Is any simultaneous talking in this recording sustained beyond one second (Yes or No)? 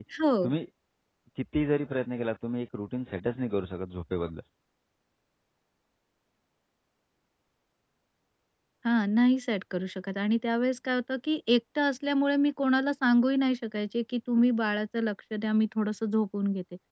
No